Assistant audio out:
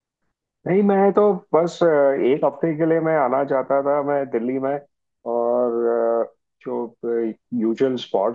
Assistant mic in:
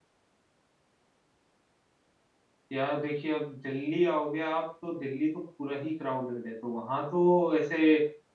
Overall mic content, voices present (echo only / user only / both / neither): user only